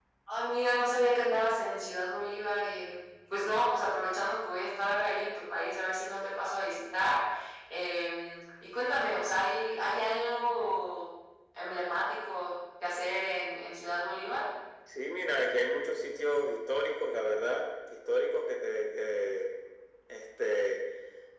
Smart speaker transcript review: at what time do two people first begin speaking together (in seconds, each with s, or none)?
none